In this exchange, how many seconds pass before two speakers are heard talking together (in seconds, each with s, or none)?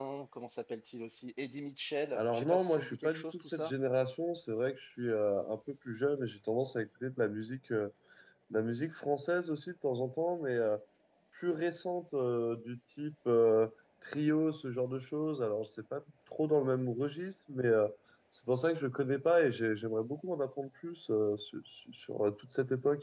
2.1 s